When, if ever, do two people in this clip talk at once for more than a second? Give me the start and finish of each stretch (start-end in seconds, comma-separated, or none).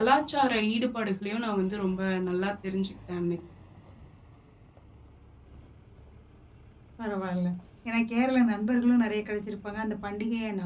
none